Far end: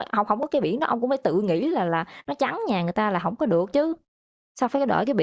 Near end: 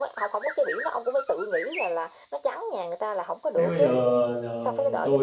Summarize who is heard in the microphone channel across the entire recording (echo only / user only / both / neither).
both